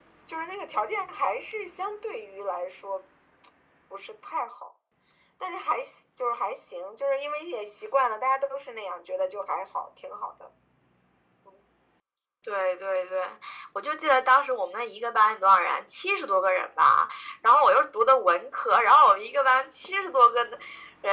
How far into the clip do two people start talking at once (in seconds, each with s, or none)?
none